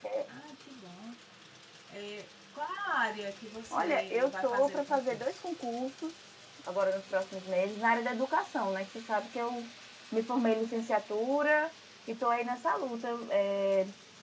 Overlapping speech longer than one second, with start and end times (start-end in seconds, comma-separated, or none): 3.7-5.3